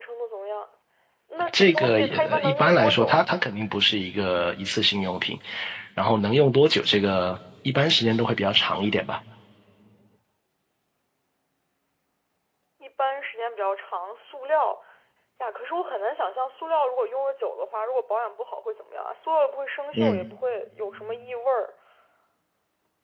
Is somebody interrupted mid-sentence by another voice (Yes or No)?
Yes